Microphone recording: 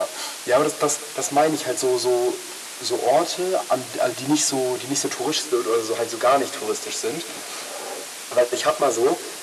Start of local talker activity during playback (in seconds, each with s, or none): none